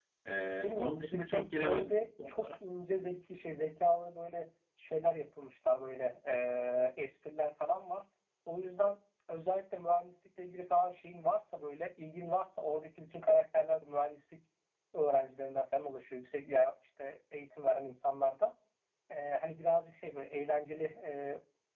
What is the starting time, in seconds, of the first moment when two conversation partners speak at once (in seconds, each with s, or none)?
0.6 s